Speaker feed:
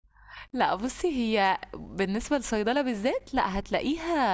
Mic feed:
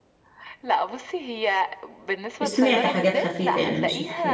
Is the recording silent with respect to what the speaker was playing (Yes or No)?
No